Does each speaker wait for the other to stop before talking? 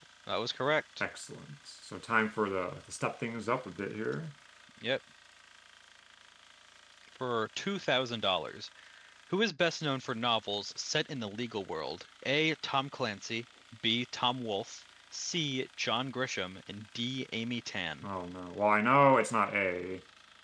Yes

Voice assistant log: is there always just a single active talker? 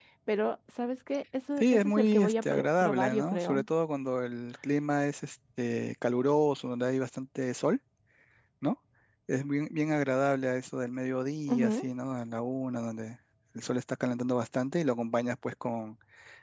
No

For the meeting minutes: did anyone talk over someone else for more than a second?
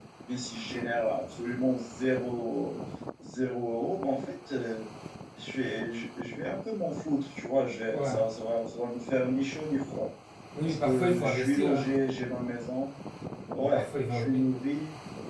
Yes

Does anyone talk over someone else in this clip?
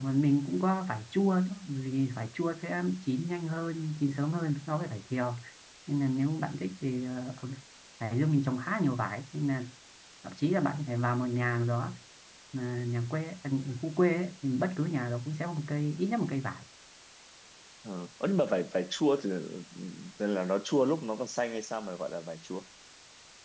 No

